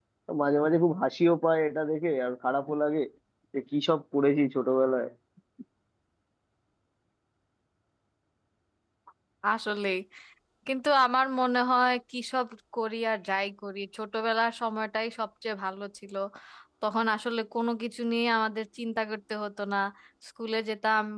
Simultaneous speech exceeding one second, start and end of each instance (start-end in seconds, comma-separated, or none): none